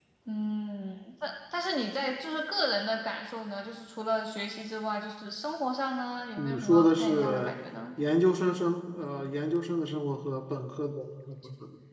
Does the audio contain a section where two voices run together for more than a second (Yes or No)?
Yes